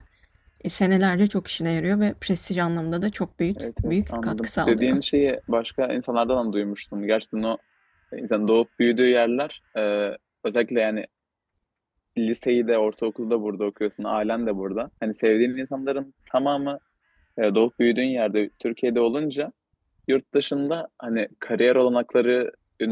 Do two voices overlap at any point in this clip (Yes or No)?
Yes